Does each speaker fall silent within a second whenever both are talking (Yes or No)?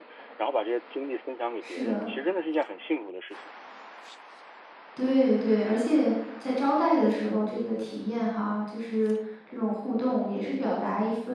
Yes